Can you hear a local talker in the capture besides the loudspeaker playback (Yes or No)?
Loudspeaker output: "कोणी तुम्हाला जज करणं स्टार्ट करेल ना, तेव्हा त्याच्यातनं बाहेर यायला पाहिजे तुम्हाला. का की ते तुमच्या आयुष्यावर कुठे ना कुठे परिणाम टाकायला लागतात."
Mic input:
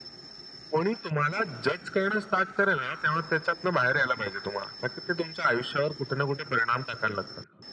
No